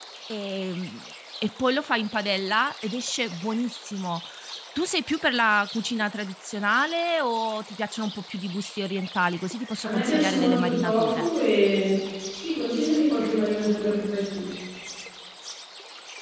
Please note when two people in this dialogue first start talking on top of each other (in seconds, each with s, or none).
9.8 s